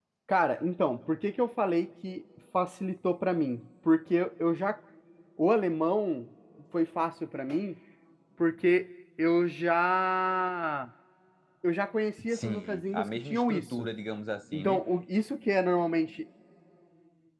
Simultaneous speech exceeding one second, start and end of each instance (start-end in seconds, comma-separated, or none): 12.3-13.9